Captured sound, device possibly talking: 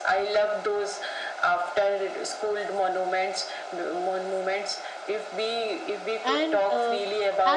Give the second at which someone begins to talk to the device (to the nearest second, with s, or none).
6 s